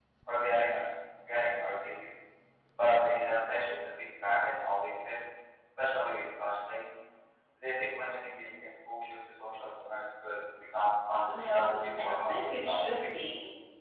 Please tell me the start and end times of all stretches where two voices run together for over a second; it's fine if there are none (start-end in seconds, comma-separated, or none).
11.3-13.2